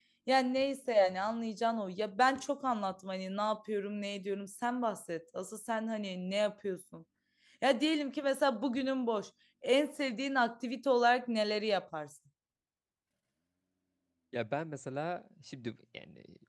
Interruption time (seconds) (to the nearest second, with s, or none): none